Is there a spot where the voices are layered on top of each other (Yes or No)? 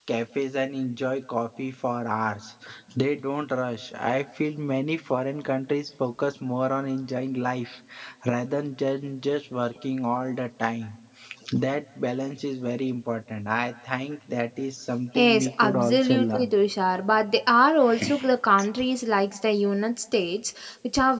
Yes